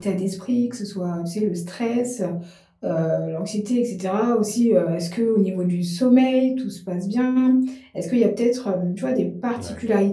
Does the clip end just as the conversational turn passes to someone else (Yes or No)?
No